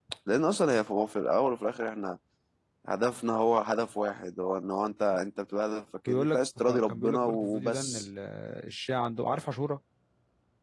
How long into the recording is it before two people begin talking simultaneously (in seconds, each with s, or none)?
6.1 s